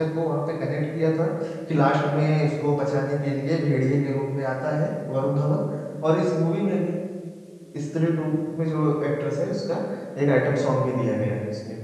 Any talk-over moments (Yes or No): No